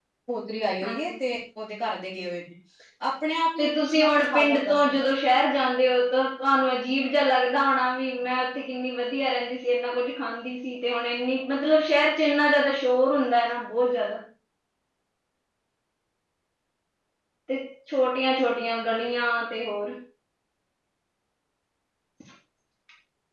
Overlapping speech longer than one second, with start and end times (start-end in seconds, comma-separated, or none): 3.6-4.9